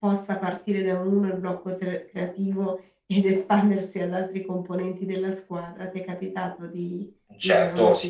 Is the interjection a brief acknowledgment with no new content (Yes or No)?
No